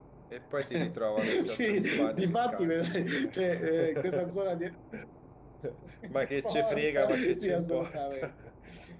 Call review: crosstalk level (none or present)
present